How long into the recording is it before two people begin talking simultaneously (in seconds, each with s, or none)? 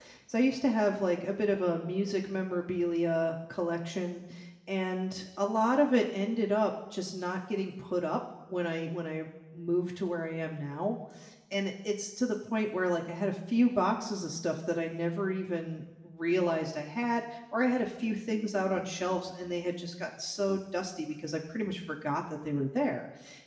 none